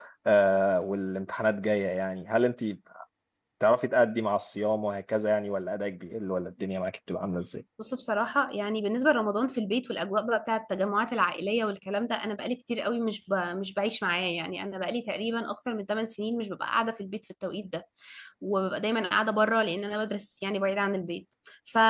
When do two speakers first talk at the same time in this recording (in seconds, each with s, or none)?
none